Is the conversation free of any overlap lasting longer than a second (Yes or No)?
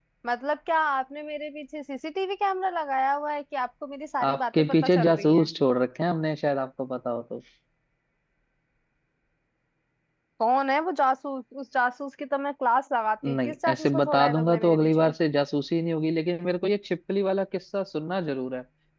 No